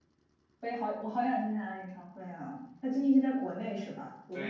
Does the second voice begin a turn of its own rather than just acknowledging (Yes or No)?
Yes